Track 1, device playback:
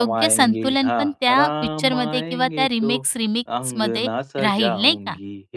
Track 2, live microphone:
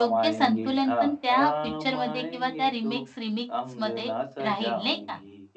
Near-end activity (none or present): none